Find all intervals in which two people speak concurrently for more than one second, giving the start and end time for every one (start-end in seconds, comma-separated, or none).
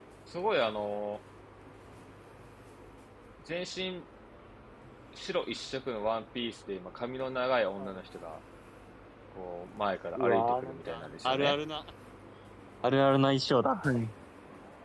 10.2-11.6